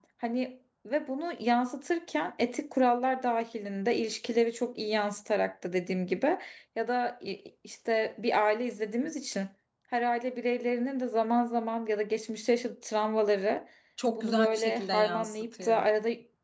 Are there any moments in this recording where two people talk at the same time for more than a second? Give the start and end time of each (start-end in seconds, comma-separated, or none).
14.2-15.8